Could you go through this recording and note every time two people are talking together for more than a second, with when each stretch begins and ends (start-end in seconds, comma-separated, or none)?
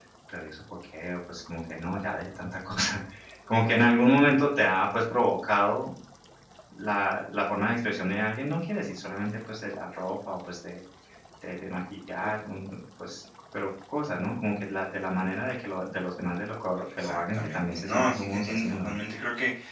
17.0-19.0